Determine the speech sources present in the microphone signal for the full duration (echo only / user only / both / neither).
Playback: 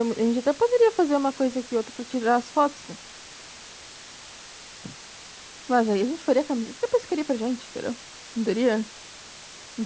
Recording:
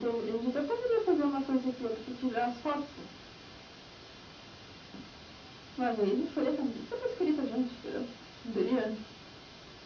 echo only